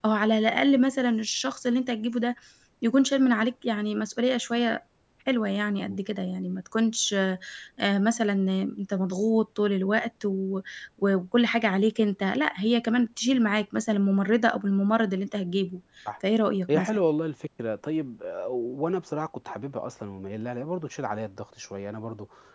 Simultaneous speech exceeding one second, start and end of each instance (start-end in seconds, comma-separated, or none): none